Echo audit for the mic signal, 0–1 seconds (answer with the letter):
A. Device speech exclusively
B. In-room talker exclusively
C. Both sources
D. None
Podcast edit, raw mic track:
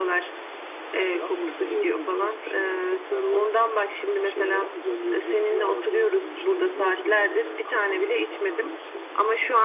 A